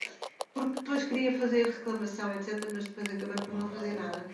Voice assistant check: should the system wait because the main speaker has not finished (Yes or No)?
Yes